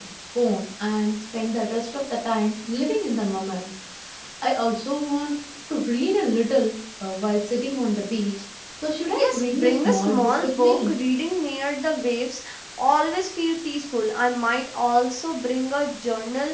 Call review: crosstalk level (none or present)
present